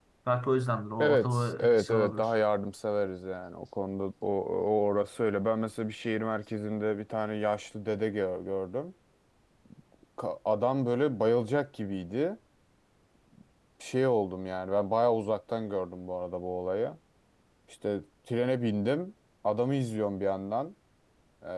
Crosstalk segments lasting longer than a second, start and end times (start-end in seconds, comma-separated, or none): 1.0-2.3